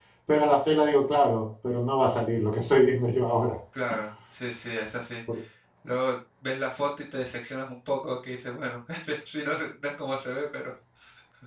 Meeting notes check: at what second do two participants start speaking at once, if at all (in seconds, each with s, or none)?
none